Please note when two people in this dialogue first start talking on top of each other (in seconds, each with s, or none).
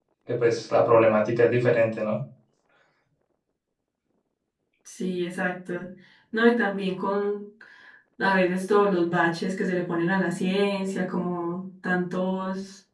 none